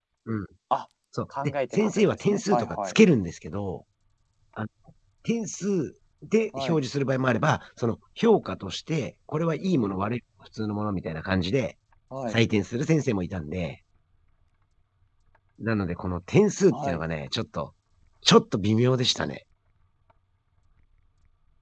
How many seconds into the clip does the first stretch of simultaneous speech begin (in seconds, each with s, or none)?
1.4 s